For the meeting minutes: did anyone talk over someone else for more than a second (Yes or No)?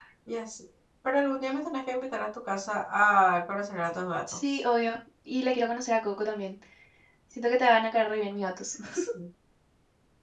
No